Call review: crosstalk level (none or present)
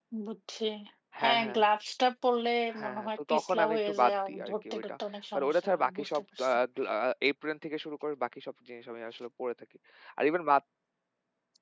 present